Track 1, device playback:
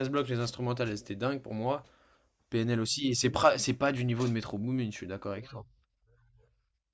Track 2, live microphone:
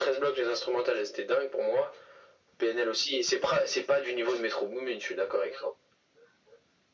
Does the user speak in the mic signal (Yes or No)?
No